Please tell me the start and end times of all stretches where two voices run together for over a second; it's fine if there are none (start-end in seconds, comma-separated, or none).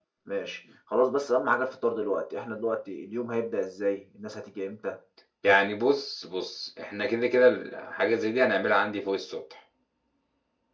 none